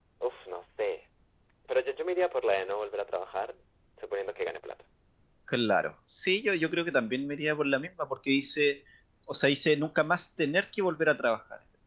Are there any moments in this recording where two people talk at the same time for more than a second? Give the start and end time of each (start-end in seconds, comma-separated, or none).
none